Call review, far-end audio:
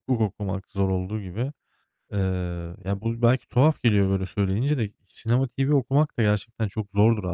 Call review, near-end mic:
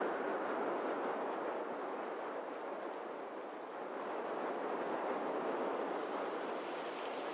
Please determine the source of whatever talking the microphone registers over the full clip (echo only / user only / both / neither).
neither